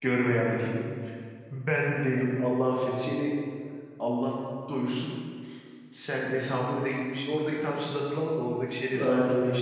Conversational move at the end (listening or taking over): taking over